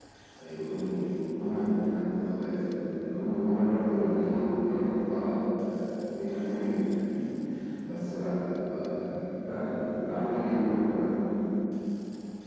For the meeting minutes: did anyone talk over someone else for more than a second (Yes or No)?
Yes